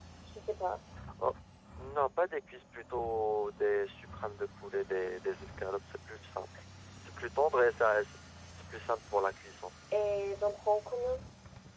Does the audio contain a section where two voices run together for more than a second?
No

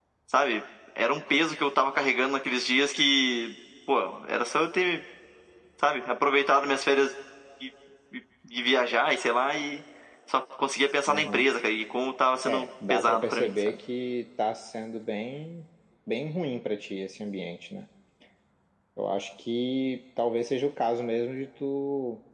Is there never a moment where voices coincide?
No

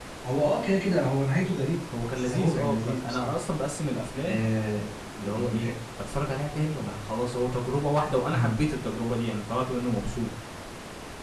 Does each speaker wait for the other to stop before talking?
No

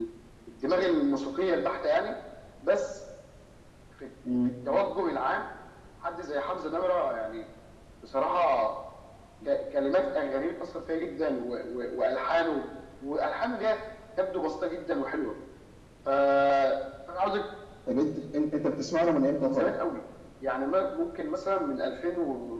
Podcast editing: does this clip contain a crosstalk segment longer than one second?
No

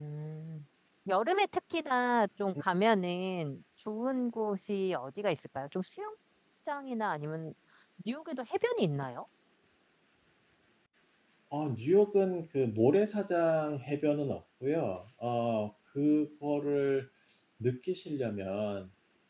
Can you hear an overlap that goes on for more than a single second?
No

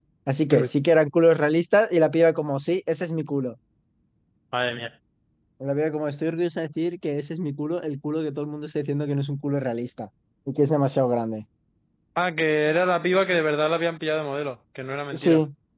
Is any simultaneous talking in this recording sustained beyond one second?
No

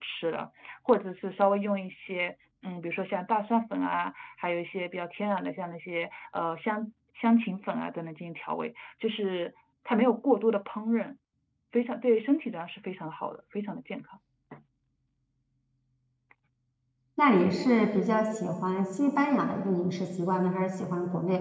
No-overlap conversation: Yes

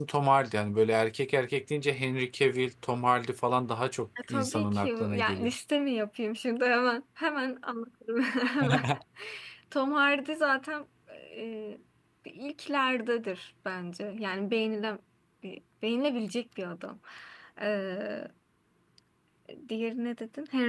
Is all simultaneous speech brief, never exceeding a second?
No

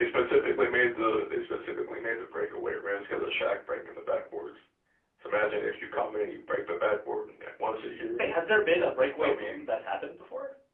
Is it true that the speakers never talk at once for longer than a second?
Yes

